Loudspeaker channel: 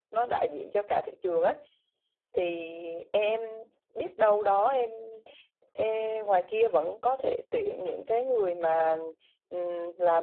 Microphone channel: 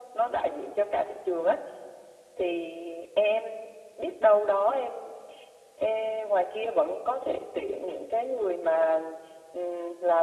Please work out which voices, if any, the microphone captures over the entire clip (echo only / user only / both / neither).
echo only